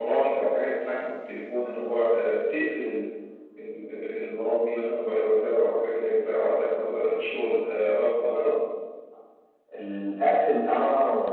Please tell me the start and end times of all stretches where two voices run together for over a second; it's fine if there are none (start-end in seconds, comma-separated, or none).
none